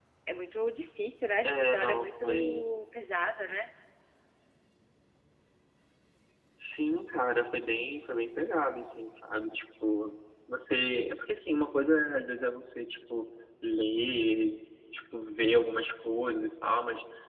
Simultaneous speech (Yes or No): Yes